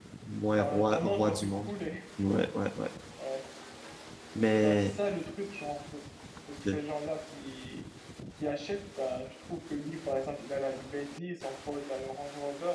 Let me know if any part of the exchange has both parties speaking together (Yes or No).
Yes